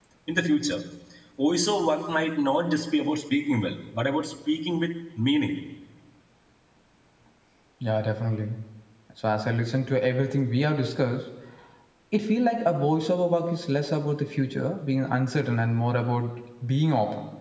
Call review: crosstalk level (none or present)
none